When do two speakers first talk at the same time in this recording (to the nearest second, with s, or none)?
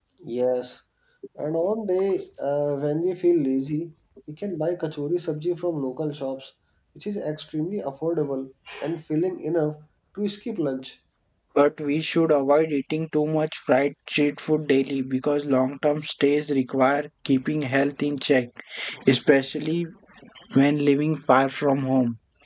none